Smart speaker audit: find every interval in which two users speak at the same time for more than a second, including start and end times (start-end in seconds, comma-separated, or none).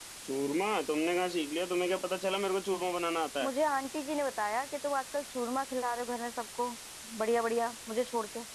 none